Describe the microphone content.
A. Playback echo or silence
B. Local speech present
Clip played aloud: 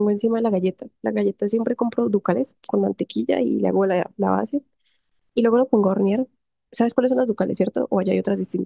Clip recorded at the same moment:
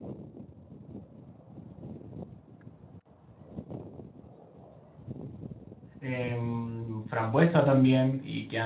B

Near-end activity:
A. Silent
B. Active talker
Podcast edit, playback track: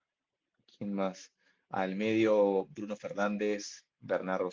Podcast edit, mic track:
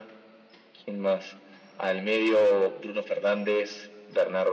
A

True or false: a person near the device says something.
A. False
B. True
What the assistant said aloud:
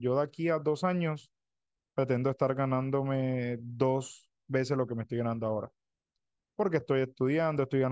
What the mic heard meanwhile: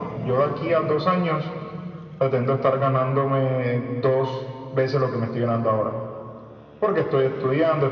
A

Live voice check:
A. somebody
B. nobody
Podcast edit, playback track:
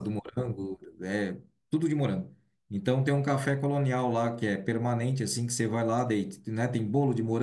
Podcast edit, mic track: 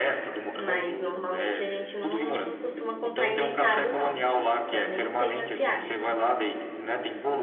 A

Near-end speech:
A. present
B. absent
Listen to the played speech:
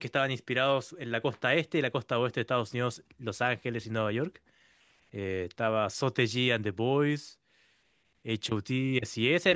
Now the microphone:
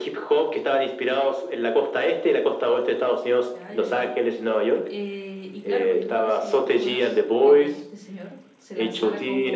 A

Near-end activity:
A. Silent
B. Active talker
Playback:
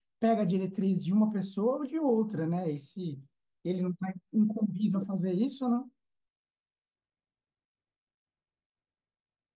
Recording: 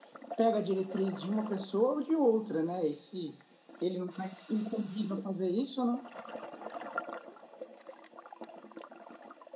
A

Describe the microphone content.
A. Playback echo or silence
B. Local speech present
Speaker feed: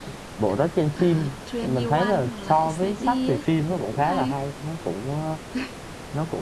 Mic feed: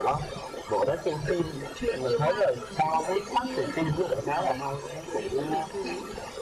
B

